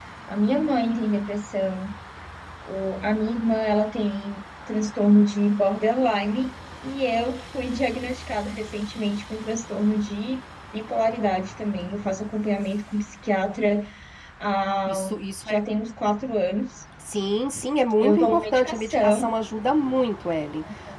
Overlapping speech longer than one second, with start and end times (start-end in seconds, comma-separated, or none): 18.0-19.3